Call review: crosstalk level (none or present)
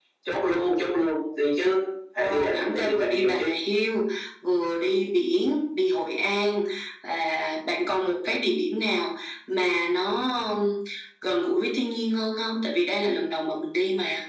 present